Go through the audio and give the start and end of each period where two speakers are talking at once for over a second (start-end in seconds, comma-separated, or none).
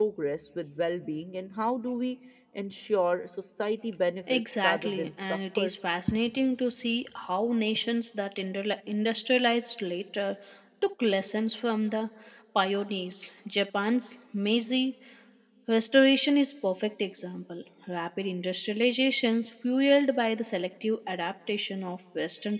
4.3-5.7